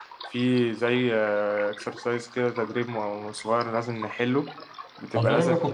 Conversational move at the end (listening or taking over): taking over